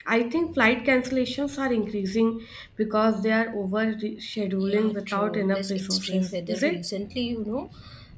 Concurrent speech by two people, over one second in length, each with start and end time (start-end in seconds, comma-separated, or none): 4.6-6.8